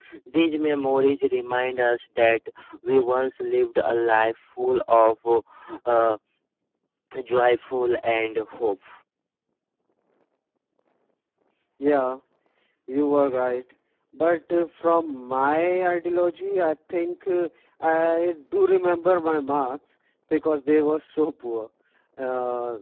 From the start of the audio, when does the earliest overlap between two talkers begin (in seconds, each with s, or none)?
none